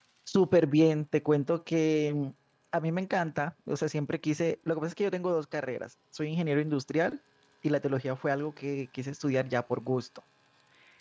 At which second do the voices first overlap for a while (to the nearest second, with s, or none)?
none